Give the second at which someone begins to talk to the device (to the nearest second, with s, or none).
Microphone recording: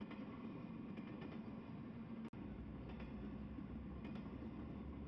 none